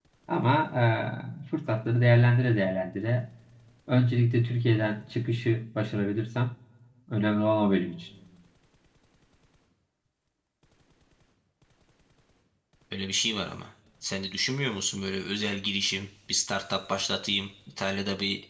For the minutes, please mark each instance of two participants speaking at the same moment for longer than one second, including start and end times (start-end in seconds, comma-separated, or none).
none